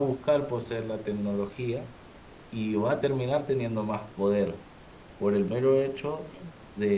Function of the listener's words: listening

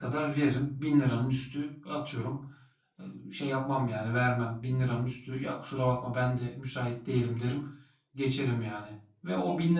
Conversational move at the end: listening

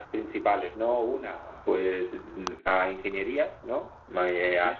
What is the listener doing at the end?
listening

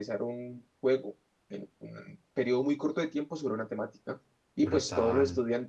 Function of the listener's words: listening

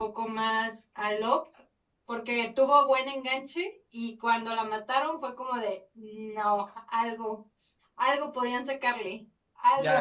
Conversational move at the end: taking over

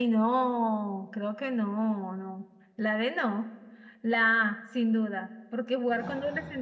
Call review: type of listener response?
listening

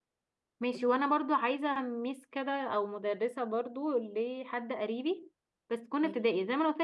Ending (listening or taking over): listening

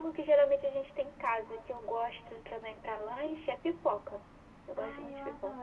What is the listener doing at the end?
taking over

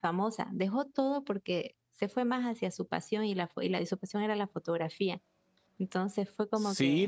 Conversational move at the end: taking over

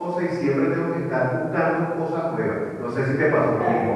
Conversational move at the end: taking over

